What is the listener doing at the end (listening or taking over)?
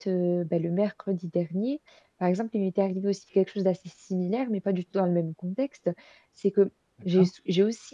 listening